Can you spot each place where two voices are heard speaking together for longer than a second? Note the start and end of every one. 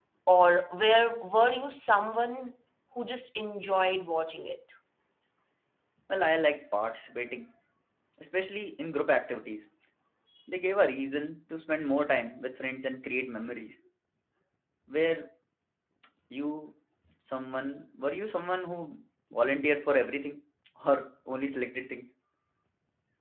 none

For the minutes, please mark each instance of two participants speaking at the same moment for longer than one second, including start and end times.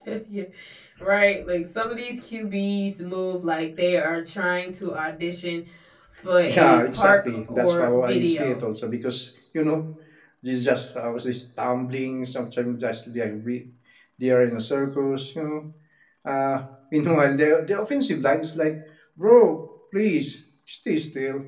6.5-8.6

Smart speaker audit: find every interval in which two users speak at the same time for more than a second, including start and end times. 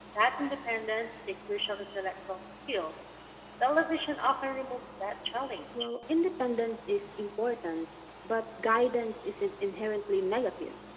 none

